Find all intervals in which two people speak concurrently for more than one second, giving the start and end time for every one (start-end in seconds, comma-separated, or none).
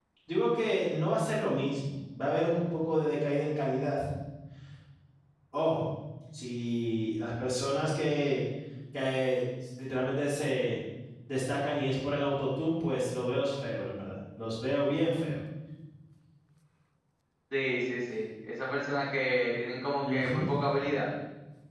none